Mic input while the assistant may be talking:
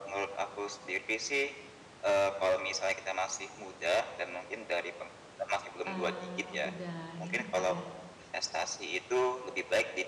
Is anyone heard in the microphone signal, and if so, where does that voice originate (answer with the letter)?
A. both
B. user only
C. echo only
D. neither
A